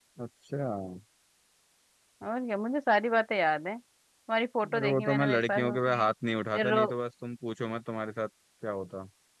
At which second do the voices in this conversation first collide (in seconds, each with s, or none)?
4.8 s